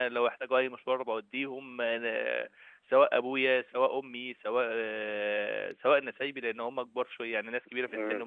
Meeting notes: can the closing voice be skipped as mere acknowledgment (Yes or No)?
Yes